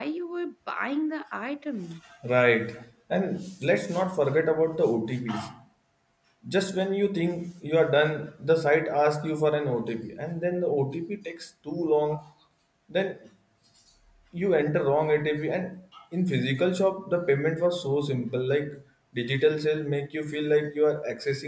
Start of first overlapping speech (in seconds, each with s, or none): none